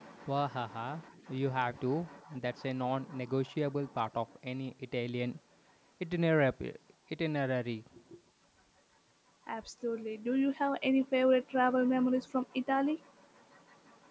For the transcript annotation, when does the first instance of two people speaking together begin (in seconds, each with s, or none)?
none